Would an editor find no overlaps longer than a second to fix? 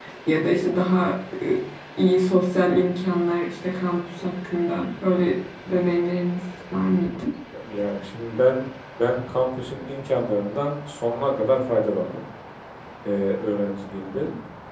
Yes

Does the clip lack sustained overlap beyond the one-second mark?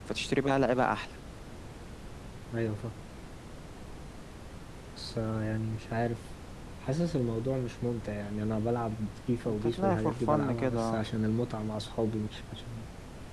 No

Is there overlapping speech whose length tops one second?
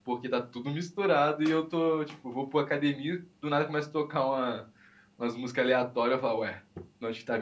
No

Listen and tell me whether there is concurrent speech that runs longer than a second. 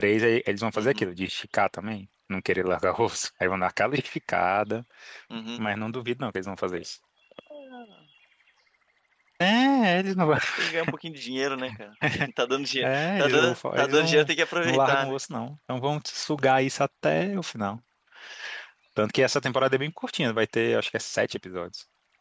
Yes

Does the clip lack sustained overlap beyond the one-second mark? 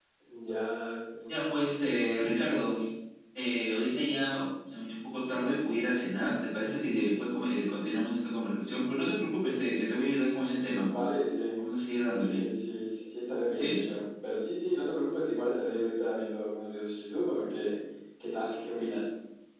Yes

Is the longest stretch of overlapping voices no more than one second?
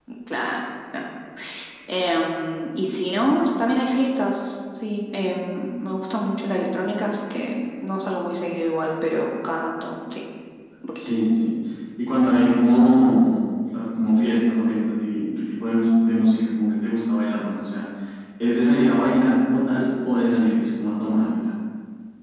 Yes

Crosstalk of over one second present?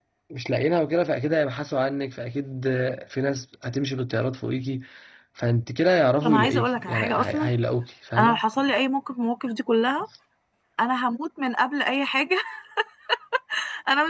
Yes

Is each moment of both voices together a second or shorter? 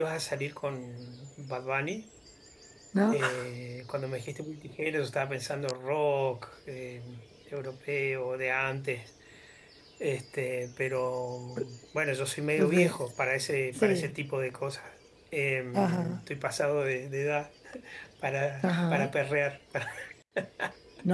Yes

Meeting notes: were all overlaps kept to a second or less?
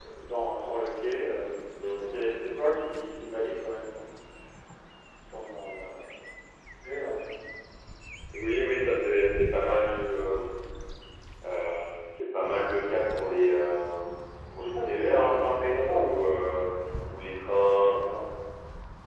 No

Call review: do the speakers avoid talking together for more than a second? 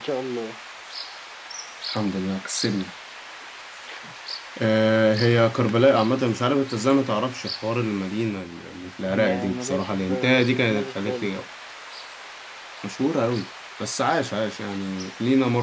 No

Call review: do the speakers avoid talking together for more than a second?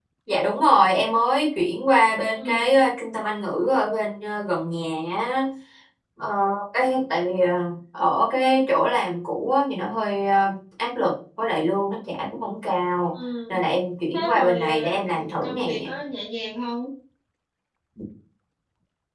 No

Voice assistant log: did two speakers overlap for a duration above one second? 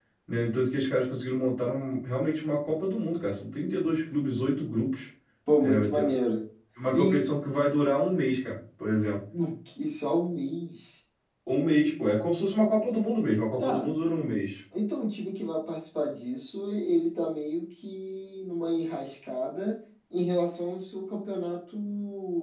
No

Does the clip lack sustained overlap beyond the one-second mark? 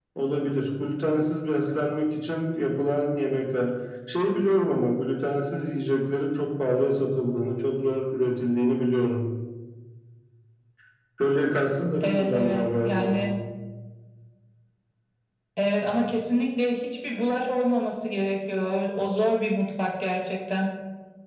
No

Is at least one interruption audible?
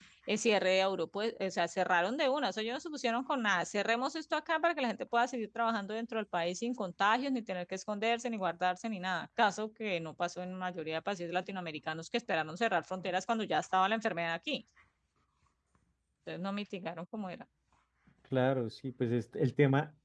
No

